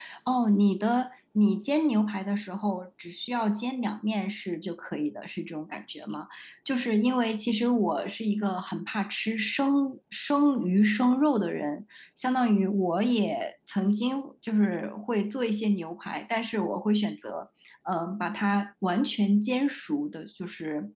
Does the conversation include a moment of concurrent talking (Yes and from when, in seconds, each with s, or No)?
No